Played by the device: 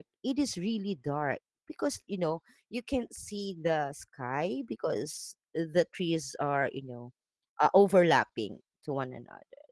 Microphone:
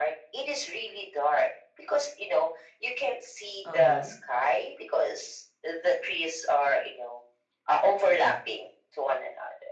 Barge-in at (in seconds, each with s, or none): 3.6 s